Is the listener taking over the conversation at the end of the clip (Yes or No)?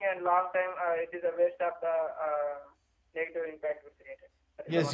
Yes